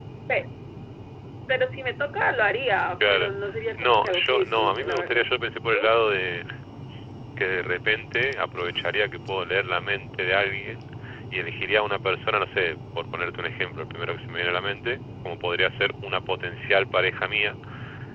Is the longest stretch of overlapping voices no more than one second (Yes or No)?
No